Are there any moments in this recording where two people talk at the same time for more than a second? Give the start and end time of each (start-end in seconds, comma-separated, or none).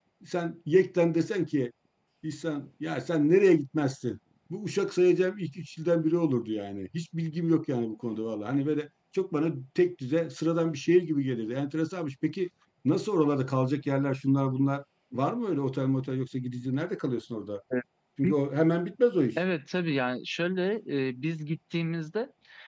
none